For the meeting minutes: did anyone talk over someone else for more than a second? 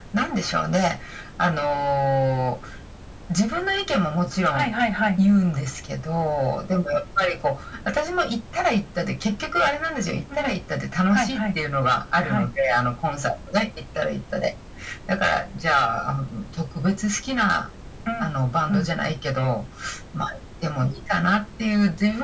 No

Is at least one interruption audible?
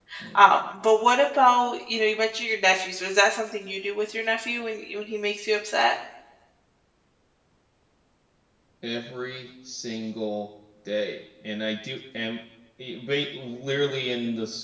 No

